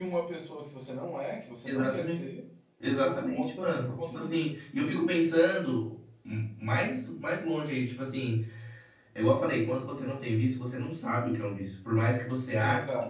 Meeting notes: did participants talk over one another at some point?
Yes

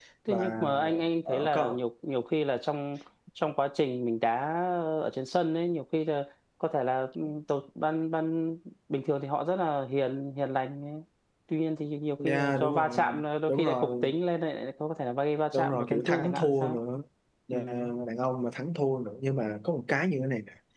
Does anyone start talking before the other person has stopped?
Yes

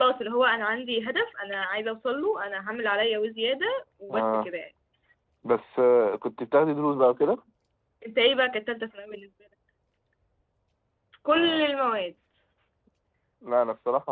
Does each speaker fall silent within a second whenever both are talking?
Yes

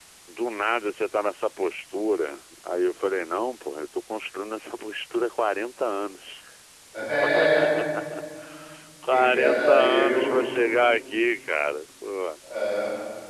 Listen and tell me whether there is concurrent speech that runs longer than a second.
Yes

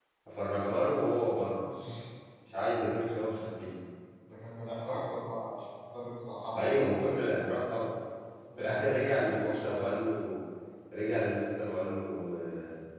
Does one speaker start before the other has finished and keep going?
Yes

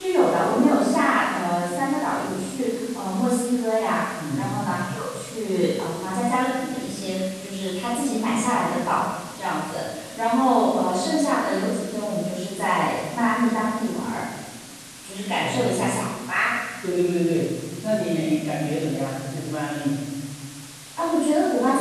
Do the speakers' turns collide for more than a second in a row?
No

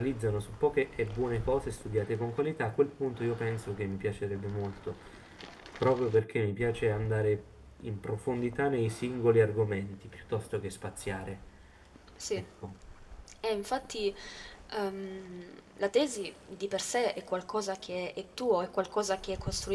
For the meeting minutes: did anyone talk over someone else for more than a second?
No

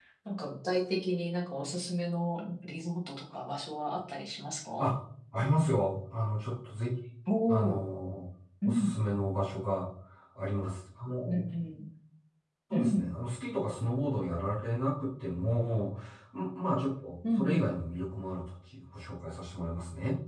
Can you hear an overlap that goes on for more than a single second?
No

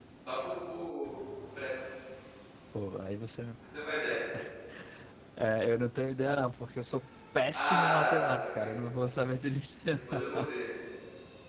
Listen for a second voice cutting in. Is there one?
Yes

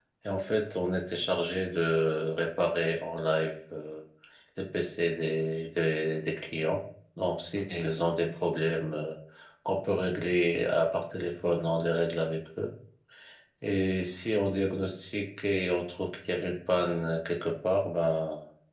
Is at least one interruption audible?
No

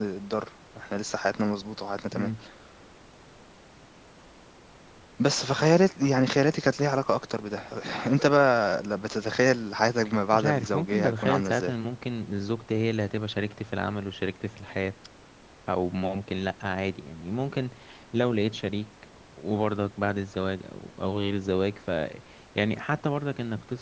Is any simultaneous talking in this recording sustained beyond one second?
Yes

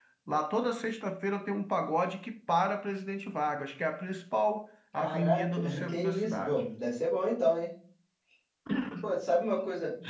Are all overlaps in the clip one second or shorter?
No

